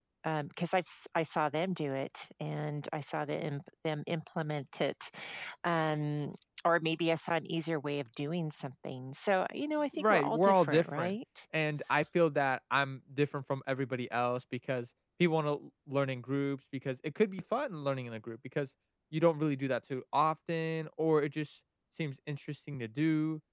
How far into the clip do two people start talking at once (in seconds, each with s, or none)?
9.9 s